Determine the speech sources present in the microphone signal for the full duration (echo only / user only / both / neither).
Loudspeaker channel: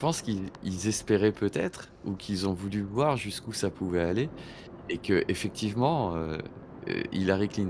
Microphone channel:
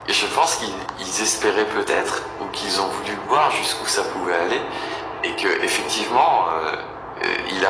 echo only